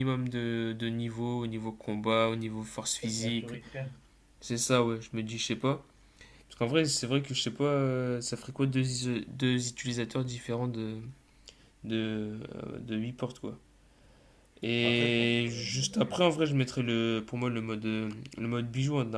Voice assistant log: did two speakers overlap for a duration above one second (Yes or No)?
Yes